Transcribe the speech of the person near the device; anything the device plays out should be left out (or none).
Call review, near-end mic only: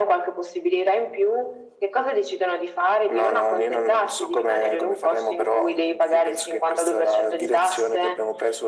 none